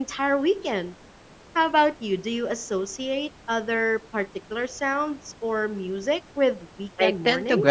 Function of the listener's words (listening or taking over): taking over